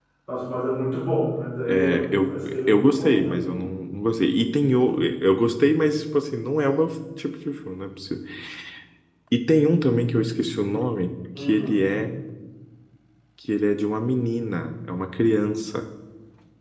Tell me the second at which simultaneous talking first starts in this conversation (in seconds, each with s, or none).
1.7 s